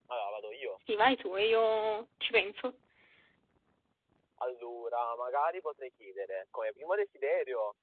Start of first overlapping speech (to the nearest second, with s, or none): none